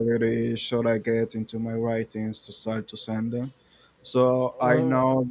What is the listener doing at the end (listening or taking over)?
listening